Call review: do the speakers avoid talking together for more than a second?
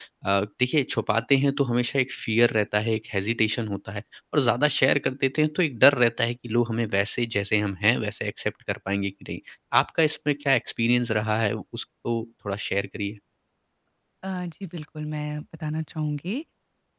Yes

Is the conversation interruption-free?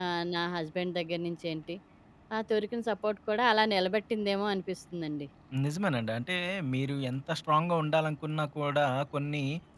Yes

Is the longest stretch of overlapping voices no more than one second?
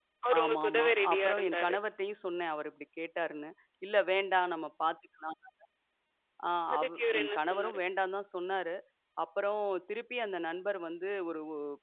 No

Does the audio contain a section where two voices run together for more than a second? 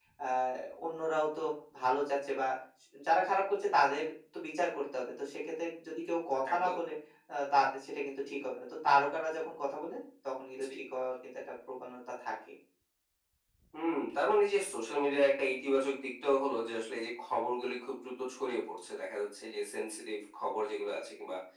No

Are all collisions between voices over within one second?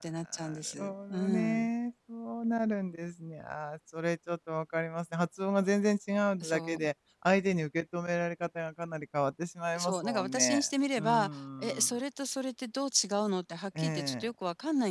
No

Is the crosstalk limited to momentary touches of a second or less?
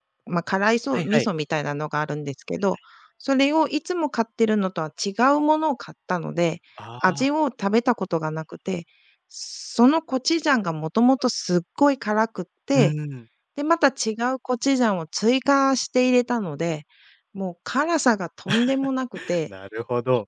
Yes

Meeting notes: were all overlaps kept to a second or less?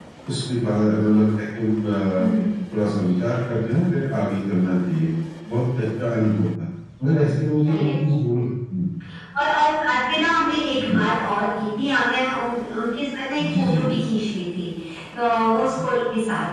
Yes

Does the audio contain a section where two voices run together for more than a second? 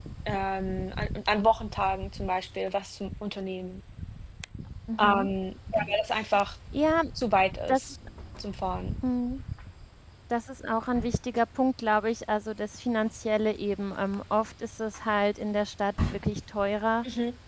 No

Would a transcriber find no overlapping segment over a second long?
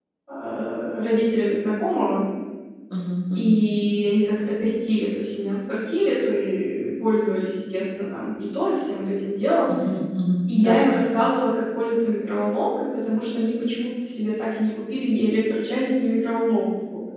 Yes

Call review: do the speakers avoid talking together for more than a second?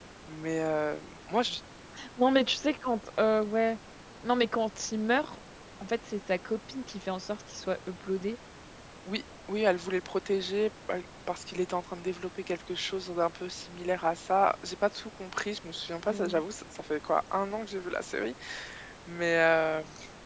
Yes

